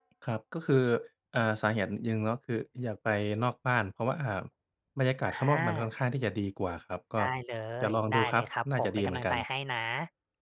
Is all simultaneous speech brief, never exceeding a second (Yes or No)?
No